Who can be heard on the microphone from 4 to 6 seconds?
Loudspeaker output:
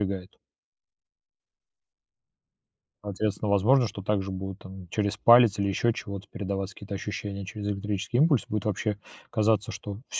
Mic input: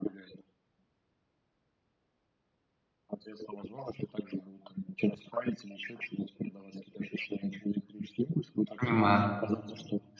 echo only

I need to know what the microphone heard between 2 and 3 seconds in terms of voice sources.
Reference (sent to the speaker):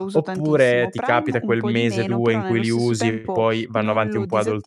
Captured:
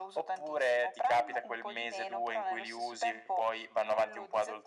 echo only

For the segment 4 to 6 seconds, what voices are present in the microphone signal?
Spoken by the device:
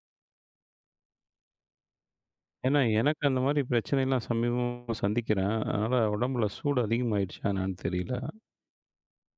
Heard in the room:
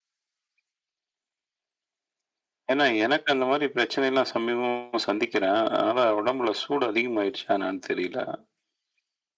echo only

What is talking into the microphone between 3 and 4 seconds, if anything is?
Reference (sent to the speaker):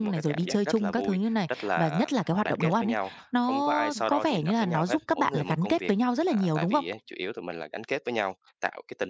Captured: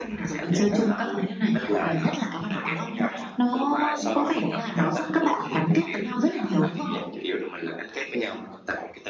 echo only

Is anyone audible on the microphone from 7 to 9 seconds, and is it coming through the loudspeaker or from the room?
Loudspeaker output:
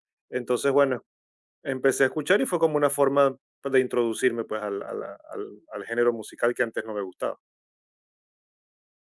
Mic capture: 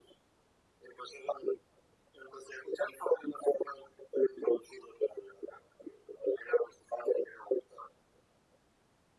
echo only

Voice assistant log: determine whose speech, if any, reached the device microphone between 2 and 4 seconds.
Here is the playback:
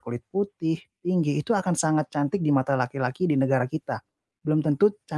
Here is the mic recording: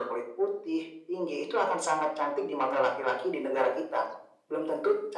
echo only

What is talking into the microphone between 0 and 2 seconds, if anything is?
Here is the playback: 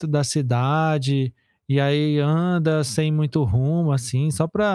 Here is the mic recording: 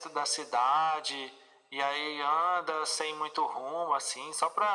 echo only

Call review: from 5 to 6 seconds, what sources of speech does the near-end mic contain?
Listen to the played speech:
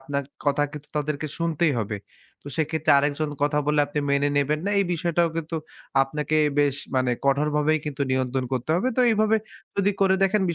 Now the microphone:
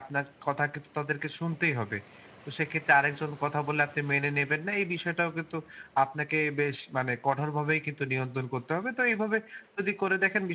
echo only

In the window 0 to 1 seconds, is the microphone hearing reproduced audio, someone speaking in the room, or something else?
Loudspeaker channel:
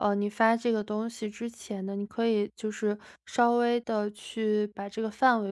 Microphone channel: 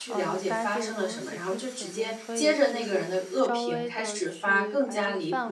both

